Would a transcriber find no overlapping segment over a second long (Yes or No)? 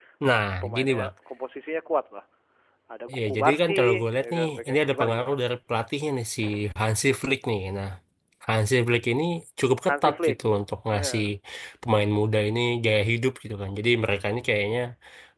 No